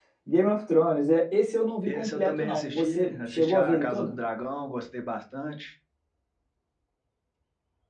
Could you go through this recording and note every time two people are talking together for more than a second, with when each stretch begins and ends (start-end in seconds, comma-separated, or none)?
1.9-4.2